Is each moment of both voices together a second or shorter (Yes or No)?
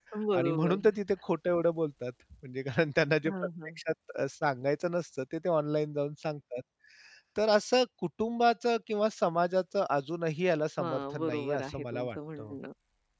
No